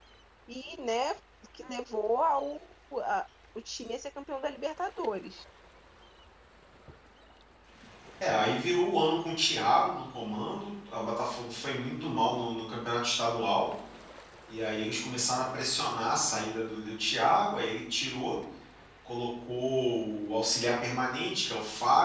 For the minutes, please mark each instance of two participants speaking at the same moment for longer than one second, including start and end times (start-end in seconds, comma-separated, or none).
none